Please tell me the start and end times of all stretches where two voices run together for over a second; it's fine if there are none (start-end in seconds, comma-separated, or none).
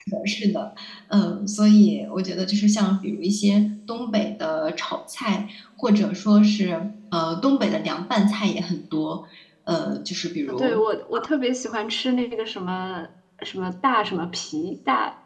none